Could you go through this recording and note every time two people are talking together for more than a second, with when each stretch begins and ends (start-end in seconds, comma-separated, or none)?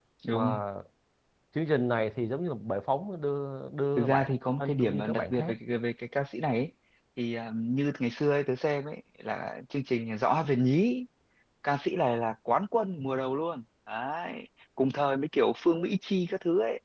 4.0-5.5